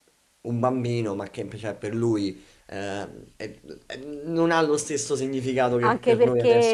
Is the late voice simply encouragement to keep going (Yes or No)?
No